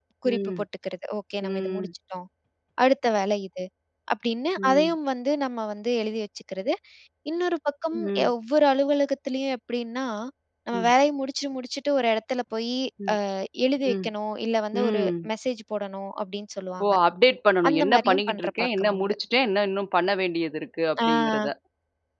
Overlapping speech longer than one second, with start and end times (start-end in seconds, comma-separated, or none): 17.7-19.1